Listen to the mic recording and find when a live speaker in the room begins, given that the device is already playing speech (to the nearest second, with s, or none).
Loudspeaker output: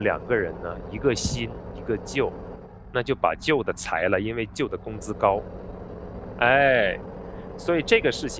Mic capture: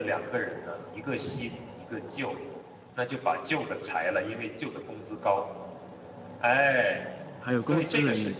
7 s